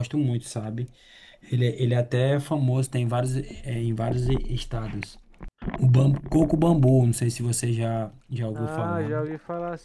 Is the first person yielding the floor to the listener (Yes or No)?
Yes